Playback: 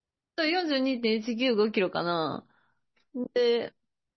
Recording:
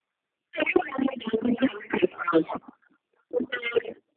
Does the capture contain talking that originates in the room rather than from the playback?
No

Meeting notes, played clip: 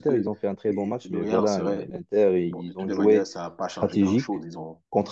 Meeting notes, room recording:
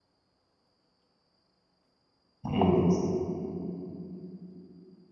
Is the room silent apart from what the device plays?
No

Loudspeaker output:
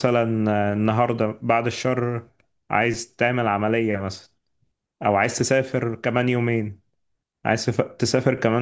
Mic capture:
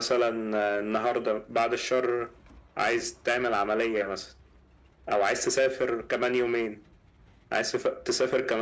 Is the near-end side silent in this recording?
Yes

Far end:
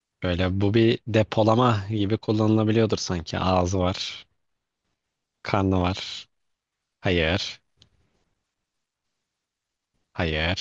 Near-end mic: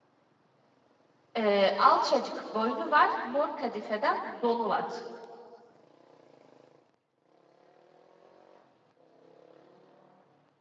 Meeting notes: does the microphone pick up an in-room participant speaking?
Yes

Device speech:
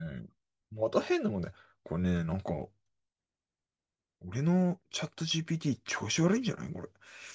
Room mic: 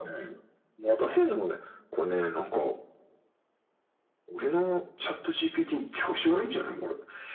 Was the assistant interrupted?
No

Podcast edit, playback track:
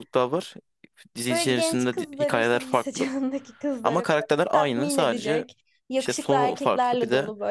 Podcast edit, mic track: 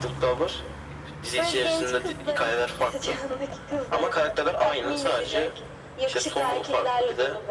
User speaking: No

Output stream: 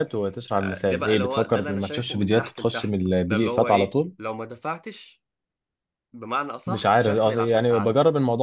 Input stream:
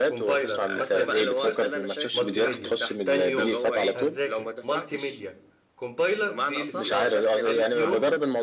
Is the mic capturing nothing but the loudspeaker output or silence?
No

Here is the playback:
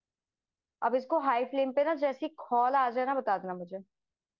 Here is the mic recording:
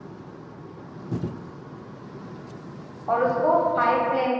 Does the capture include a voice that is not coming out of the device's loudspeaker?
Yes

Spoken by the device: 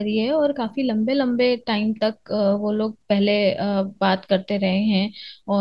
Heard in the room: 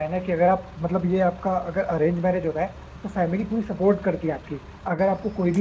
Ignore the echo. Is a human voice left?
Yes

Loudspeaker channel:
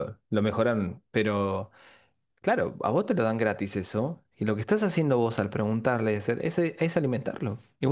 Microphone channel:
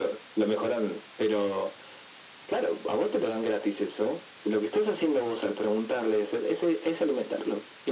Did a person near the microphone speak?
No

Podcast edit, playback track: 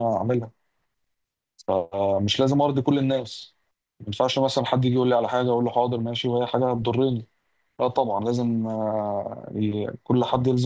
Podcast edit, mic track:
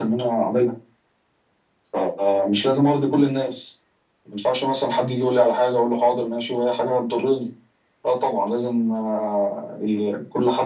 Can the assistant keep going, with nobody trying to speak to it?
Yes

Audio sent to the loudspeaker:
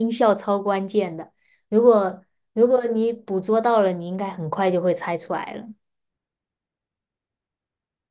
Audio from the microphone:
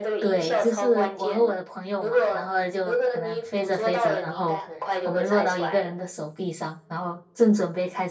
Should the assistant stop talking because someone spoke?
Yes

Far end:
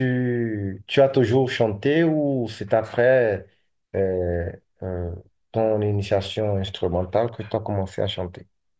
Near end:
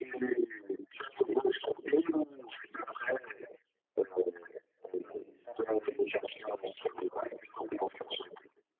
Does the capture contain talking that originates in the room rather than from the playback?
Yes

